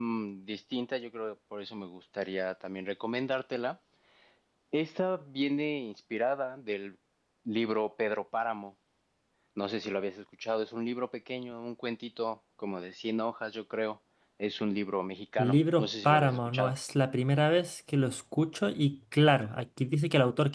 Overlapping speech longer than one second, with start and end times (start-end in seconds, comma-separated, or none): 15.4-16.7